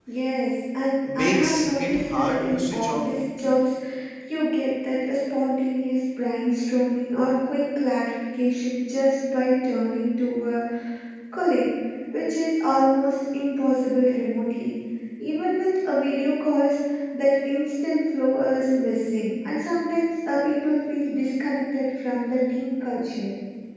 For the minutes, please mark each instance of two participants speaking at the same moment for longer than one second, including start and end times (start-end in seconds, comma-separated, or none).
1.1-3.1